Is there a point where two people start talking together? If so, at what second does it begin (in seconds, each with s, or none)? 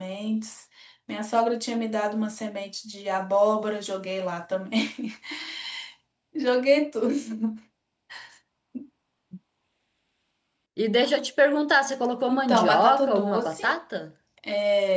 12.3 s